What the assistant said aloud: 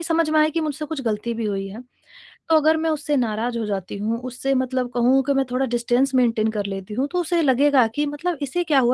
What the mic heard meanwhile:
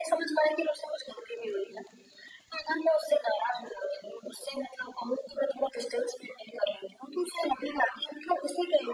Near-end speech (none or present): none